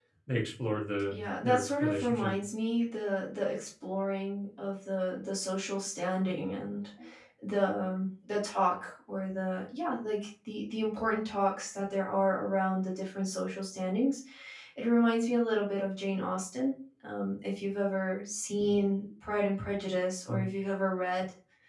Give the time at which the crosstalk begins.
1.1 s

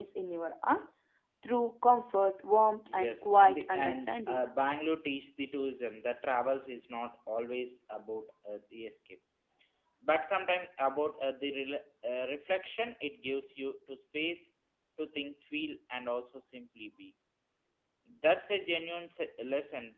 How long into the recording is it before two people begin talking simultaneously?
2.9 s

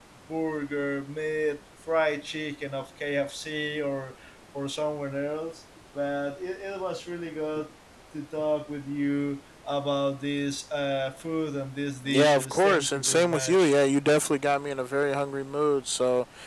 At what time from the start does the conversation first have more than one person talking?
12.1 s

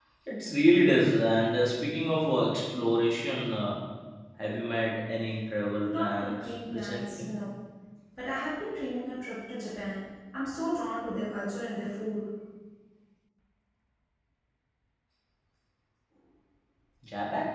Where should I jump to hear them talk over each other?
5.9 s

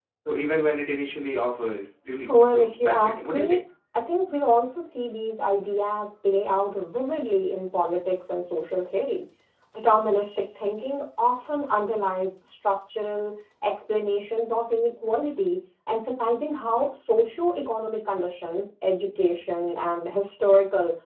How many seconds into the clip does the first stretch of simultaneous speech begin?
2.3 s

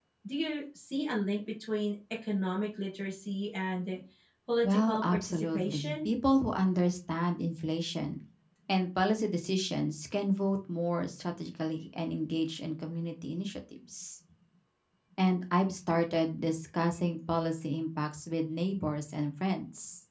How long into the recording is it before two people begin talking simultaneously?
4.6 s

